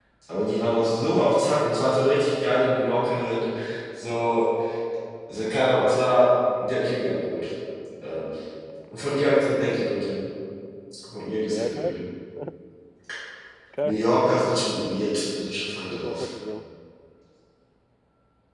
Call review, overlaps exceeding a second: none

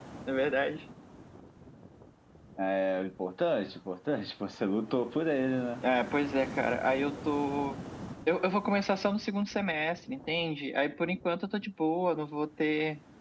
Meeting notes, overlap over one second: none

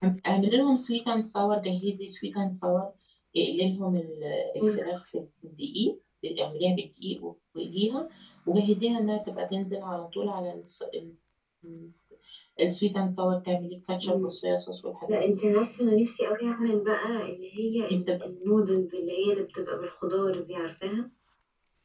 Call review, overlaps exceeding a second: none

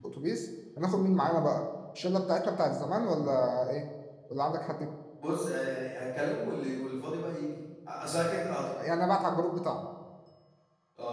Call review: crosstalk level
none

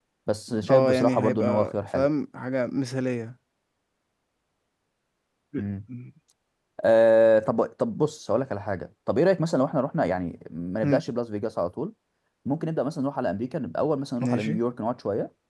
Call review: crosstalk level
present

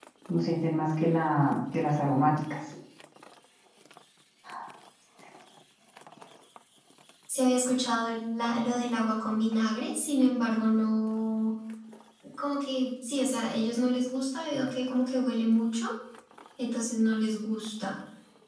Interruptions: none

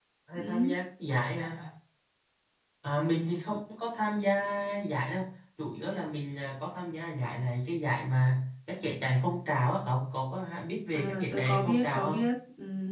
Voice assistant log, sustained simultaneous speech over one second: present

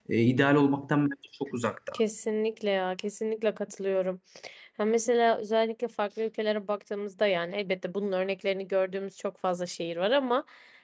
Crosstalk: none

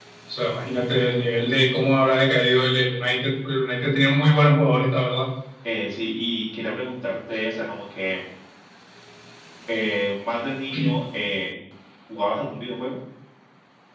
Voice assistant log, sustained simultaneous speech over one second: none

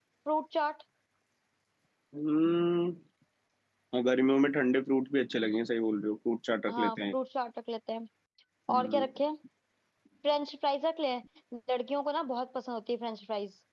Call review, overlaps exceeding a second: none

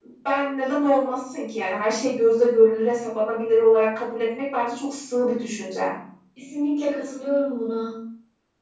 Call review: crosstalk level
none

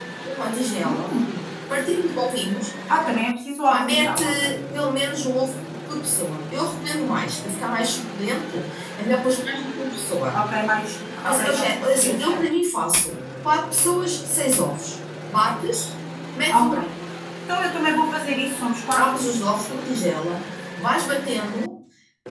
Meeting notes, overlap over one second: present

